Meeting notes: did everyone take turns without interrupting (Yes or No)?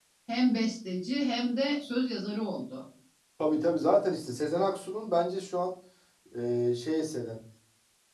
Yes